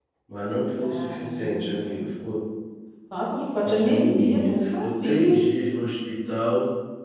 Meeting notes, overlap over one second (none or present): present